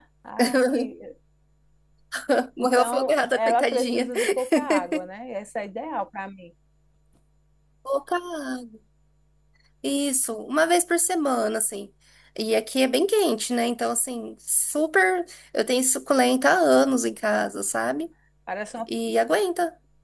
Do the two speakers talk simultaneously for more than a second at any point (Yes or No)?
Yes